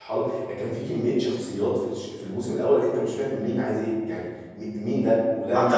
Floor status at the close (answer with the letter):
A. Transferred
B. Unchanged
A